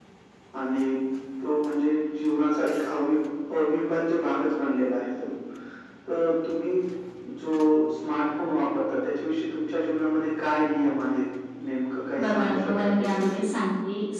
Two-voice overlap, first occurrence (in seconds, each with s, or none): 12.2 s